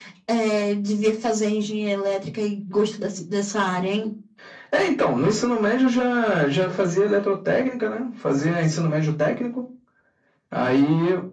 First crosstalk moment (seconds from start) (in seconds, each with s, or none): none